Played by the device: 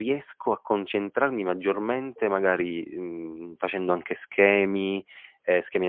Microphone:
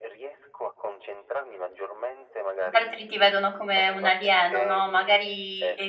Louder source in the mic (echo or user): user